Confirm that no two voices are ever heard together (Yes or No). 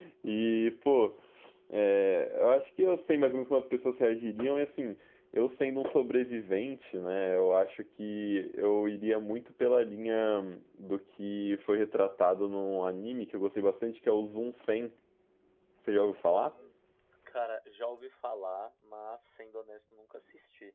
Yes